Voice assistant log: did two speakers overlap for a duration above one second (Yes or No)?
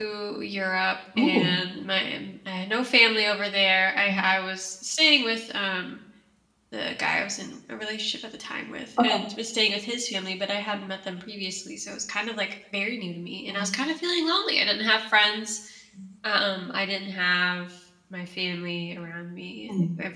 No